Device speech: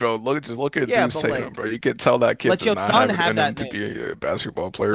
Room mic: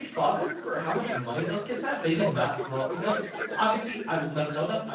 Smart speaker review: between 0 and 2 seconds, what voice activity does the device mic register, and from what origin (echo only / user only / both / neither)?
both